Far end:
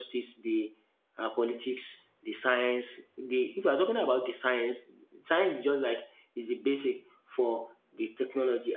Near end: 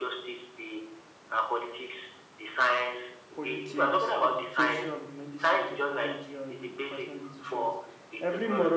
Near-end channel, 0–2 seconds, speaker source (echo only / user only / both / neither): echo only